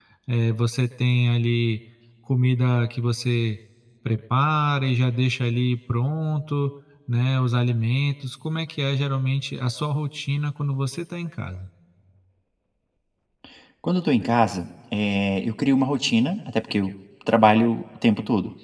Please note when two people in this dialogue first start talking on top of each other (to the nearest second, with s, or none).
none